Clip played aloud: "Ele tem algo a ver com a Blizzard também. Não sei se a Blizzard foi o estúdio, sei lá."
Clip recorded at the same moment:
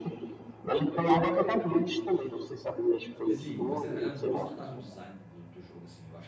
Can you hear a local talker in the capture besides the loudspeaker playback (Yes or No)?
Yes